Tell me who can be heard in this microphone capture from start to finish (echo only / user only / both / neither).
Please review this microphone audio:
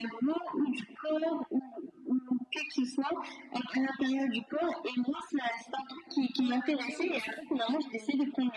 both